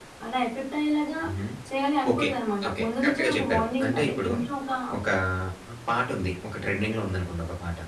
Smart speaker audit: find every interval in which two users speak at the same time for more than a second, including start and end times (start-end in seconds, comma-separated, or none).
2.7-4.3